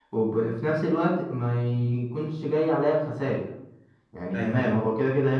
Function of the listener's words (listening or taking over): listening